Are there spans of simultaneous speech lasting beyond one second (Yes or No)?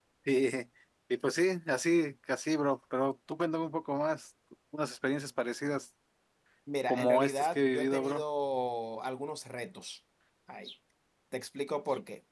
Yes